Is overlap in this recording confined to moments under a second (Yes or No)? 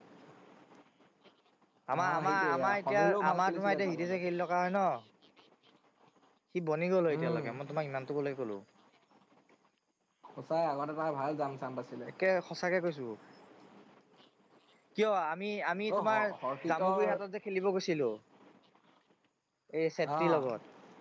No